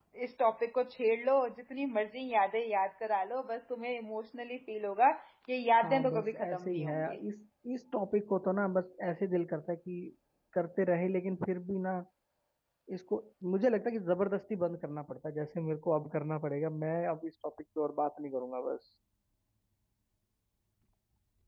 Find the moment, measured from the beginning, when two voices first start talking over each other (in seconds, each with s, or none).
5.8 s